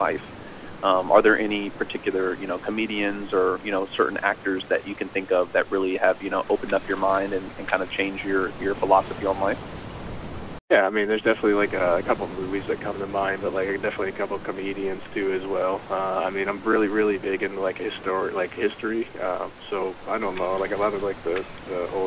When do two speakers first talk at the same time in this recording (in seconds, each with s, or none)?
none